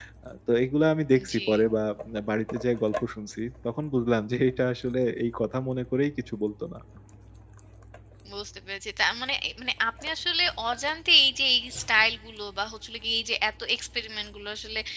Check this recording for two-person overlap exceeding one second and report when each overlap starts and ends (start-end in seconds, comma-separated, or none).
none